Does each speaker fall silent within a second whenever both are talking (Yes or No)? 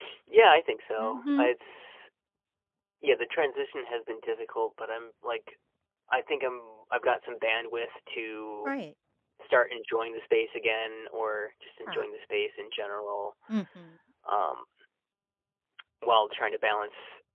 Yes